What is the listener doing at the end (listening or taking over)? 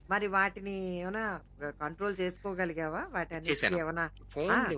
taking over